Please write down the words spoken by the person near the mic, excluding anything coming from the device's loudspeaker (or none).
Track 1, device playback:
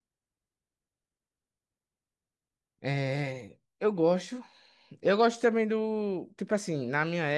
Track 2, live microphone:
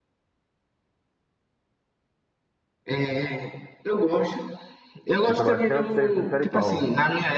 Escuta bastante, você prefere qual?